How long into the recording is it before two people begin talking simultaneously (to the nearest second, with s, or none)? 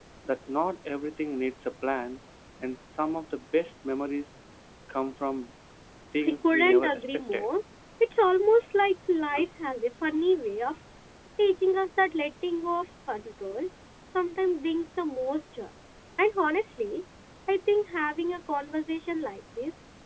6 s